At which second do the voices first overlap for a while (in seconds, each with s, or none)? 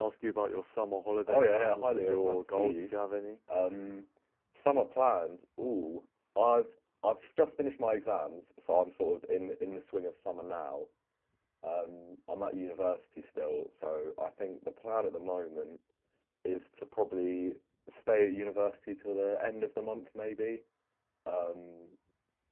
1.3 s